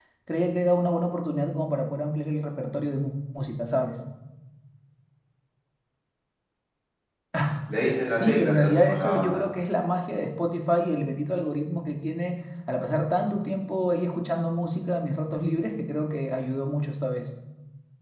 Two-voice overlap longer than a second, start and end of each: 8.1-9.4

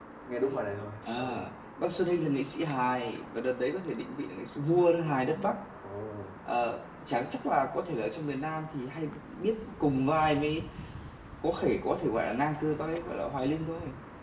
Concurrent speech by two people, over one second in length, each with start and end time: none

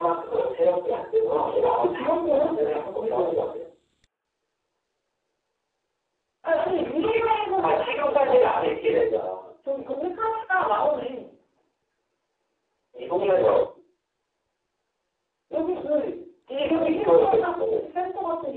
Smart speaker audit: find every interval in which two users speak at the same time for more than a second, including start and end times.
1.2-3.5, 6.7-8.6, 16.5-17.9

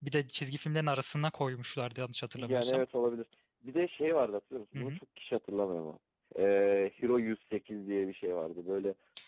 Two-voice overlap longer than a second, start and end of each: none

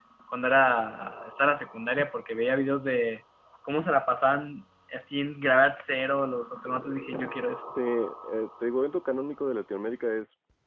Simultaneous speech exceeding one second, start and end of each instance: none

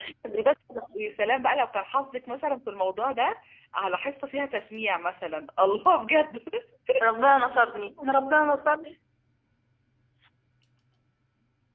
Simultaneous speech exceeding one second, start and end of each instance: none

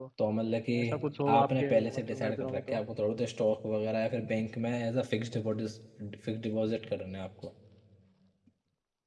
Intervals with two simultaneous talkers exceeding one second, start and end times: 1.3-2.8

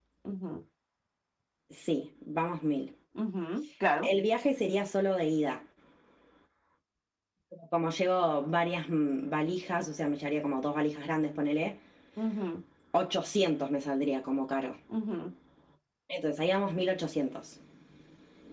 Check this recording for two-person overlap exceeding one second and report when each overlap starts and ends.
none

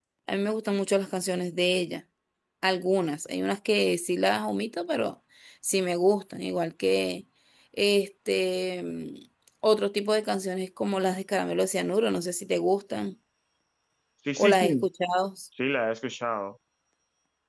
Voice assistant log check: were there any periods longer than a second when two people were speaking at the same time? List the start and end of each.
none

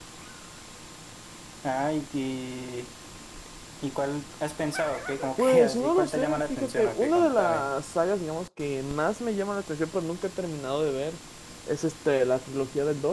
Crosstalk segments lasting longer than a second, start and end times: 5.4-7.7

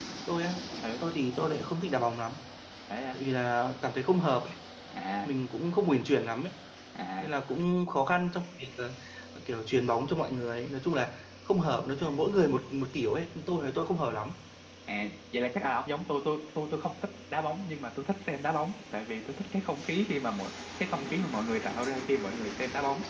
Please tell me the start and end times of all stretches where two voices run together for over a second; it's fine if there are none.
none

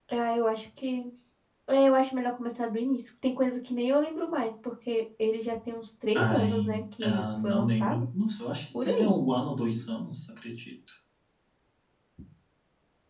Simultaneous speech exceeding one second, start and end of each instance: 6.2-8.1

